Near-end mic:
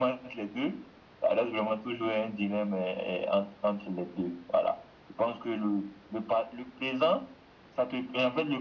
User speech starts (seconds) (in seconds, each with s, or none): none